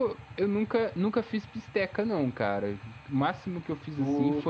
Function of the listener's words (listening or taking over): listening